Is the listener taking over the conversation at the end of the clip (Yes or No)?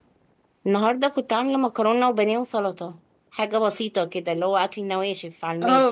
Yes